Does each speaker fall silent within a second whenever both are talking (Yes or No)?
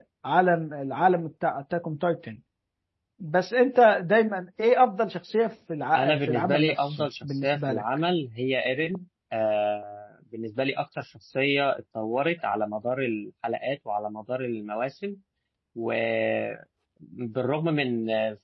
No